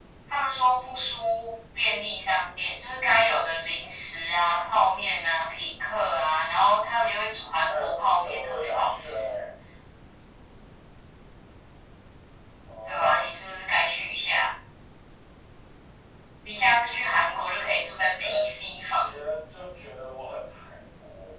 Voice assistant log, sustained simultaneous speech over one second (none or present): present